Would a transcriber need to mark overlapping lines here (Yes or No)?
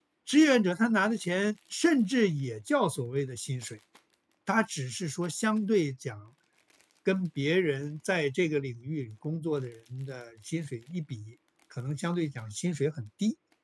No